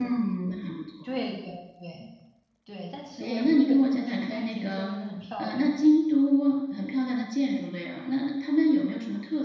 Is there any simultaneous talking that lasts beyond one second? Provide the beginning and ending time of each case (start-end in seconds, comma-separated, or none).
3.2-4.9